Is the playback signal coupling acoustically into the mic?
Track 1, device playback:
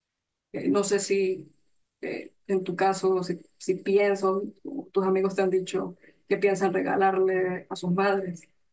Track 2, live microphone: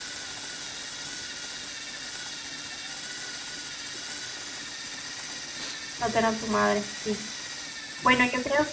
No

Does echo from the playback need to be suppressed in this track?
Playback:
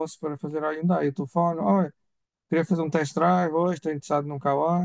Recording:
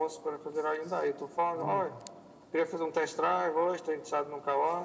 Yes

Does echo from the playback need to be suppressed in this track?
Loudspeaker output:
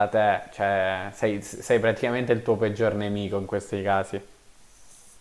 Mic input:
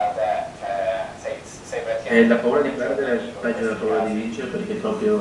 Yes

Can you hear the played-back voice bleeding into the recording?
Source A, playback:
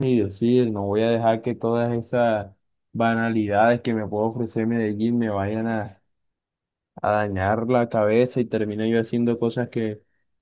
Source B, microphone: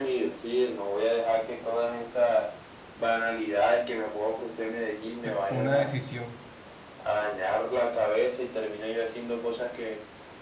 Yes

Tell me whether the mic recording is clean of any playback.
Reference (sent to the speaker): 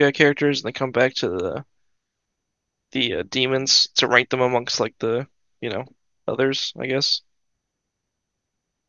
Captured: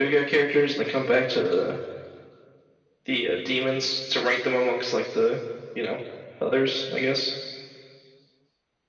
No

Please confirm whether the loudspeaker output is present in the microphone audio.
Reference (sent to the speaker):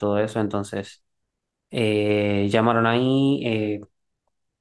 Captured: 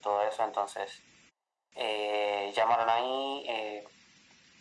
Yes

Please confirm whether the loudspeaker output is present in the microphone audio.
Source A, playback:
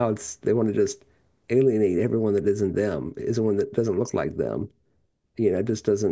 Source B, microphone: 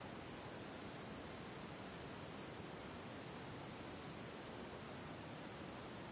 No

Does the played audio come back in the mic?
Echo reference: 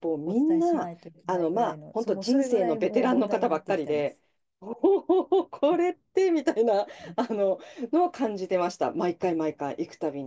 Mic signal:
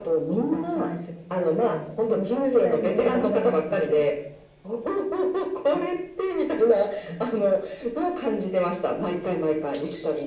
Yes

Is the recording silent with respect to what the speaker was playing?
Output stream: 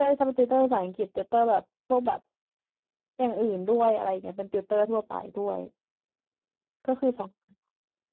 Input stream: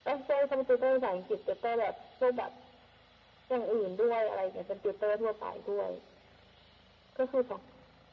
No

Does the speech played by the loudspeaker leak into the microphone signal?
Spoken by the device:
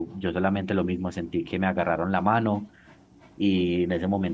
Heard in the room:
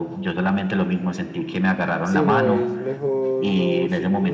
Yes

